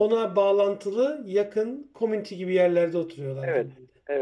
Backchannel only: No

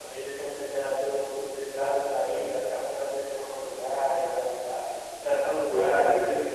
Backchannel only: Yes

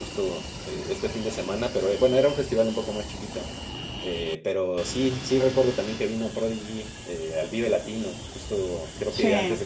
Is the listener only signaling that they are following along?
Yes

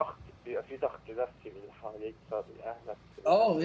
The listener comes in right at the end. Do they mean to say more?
Yes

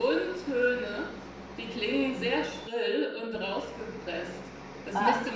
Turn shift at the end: No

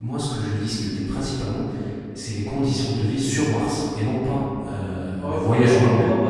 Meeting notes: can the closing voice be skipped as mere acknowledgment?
No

